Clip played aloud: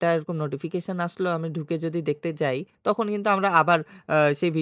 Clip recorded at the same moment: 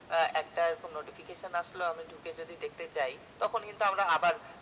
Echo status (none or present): present